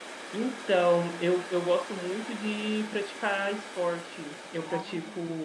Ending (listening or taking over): listening